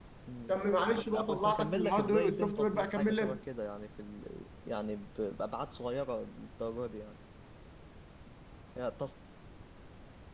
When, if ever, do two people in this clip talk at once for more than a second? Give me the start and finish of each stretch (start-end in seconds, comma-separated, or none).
1.1-3.4